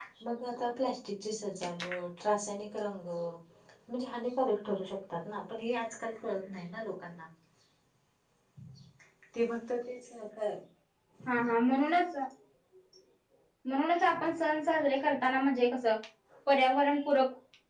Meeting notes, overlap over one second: none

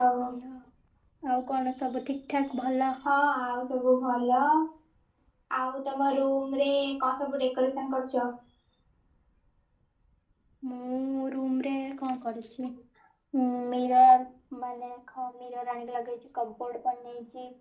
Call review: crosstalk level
none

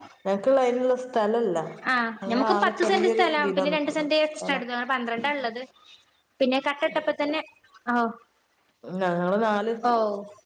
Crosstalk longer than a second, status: present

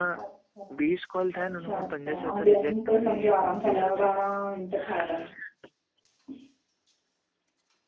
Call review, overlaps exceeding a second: present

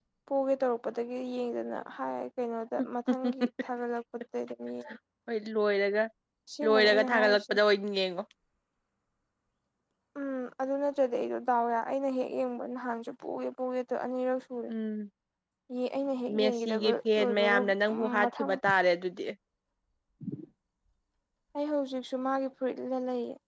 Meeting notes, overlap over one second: present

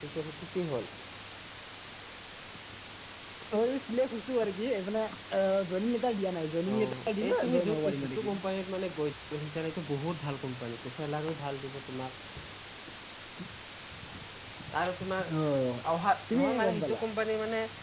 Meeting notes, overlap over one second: present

